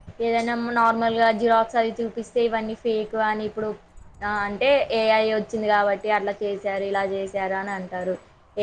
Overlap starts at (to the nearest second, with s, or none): none